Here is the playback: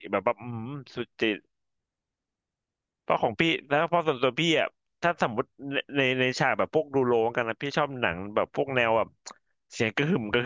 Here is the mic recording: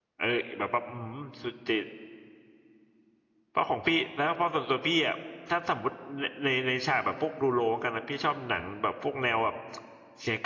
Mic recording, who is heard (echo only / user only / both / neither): echo only